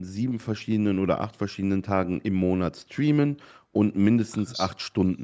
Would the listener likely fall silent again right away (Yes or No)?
Yes